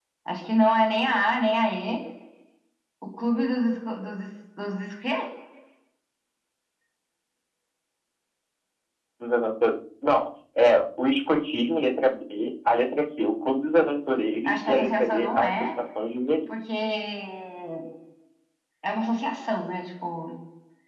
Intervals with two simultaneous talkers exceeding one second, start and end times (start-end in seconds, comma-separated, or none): 14.4-15.7